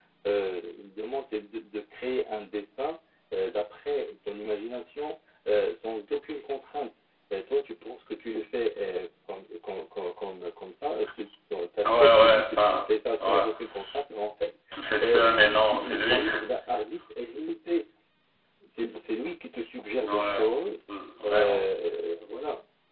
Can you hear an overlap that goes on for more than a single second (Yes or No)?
Yes